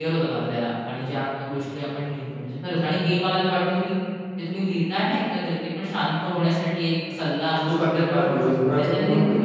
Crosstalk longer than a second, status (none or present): present